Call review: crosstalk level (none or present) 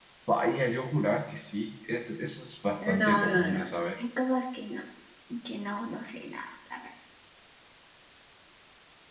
present